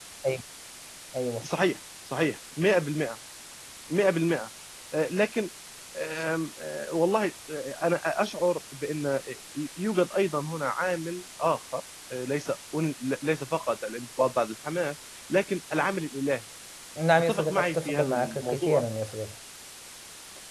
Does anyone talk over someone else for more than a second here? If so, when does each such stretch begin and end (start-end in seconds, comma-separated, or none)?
17.3-18.8